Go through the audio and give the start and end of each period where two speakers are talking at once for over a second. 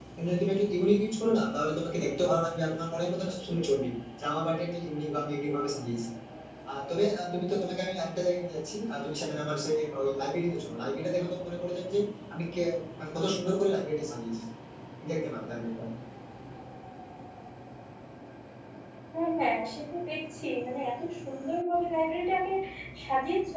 none

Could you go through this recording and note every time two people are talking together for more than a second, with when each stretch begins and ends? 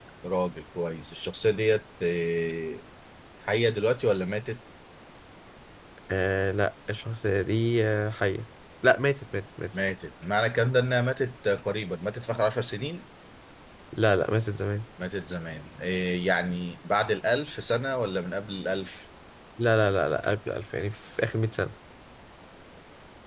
none

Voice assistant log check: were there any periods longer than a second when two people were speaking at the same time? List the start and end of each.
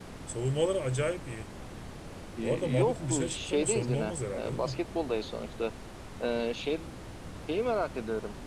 2.4-4.7

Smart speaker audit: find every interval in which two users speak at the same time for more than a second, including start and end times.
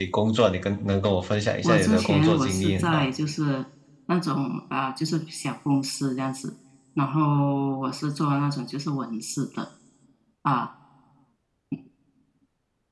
1.6-3.1

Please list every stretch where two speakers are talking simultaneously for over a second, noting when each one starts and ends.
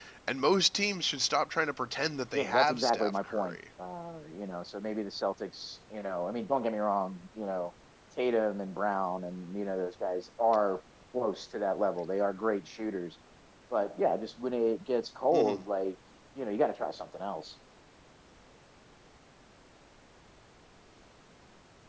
2.3-3.5

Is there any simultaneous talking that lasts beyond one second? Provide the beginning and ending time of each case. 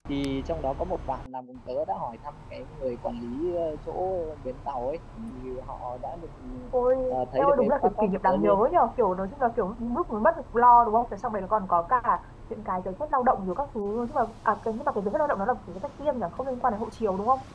7.4-8.6

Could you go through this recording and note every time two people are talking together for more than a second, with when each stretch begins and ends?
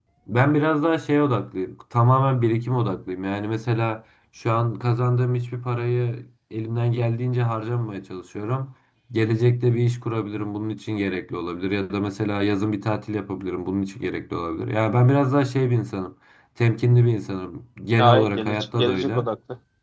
18.0-19.3

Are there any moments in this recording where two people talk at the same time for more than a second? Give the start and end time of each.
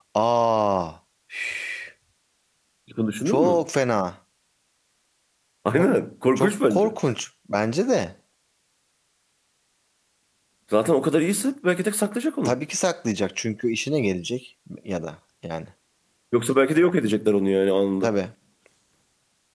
none

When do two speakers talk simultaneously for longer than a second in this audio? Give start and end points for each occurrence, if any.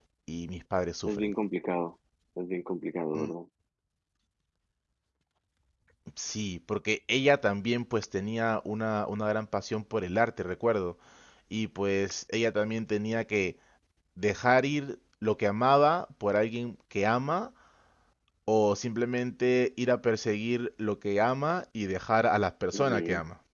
none

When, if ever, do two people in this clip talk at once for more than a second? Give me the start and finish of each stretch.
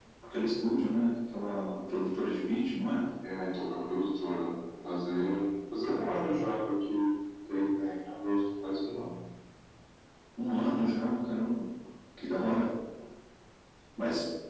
none

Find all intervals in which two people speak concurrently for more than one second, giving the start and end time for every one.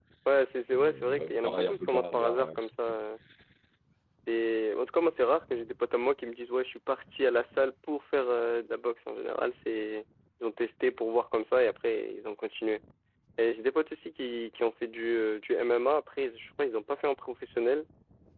0.8-2.5

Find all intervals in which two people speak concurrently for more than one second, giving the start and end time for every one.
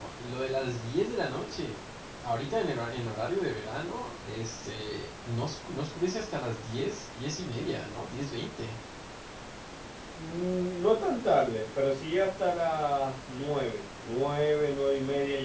none

